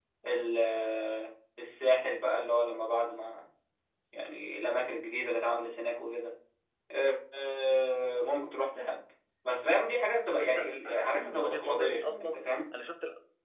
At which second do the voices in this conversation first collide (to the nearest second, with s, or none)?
10 s